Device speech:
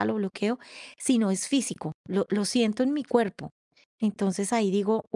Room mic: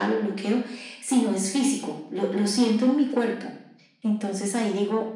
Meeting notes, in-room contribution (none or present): none